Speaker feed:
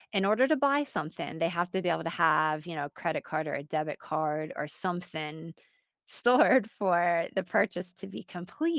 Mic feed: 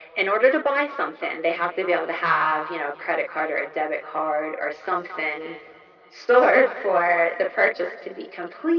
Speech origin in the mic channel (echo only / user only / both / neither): echo only